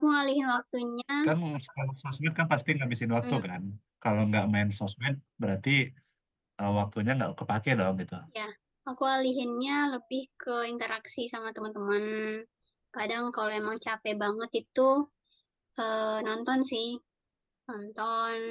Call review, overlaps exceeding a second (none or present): none